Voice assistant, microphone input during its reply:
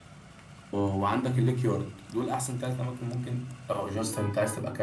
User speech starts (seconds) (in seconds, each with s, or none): none